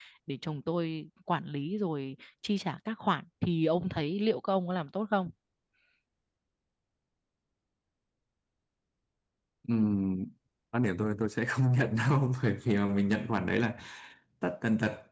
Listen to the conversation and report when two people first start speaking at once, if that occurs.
none

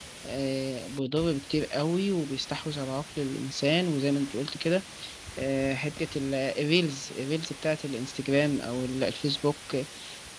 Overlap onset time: none

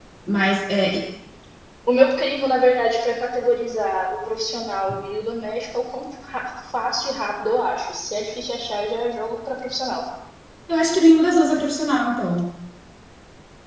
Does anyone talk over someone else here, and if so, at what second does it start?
none

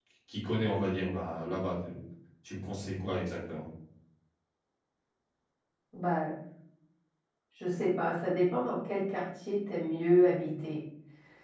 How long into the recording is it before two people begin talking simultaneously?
none

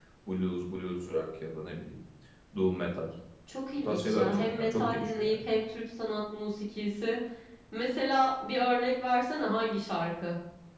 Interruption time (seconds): 3.8 s

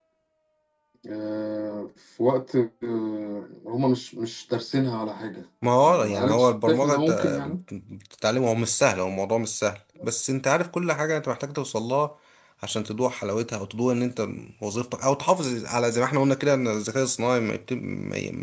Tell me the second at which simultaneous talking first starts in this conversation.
5.6 s

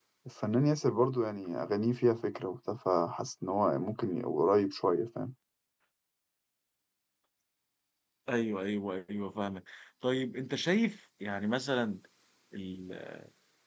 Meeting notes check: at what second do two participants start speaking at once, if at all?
none

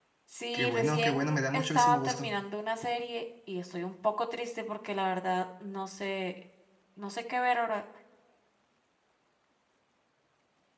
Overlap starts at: 0.5 s

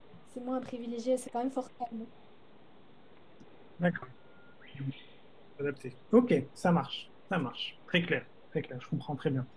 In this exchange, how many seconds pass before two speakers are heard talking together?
none

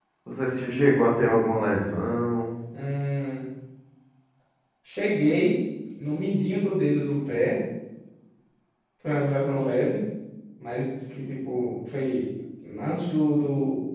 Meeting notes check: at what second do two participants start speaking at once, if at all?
none

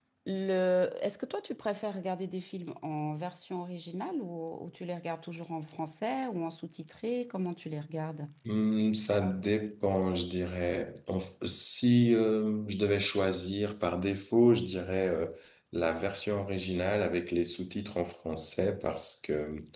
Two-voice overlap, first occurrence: none

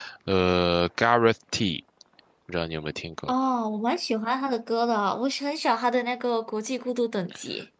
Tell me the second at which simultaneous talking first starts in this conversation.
none

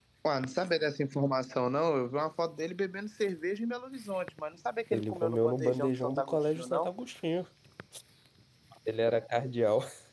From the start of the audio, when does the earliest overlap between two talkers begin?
4.9 s

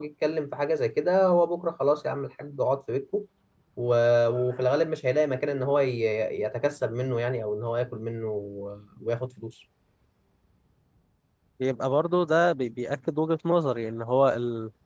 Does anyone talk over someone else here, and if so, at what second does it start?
none

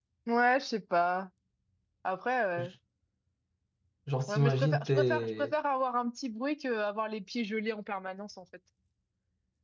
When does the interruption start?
4.3 s

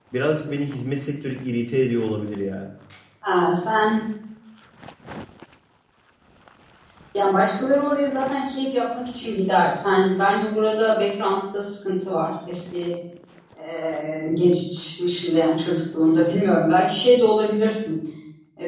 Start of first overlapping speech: none

